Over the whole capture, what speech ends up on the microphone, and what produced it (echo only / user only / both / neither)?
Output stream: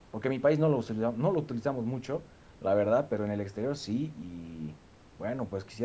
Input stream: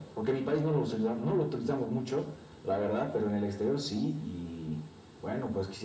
echo only